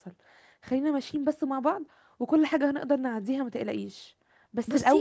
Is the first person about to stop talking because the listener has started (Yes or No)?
No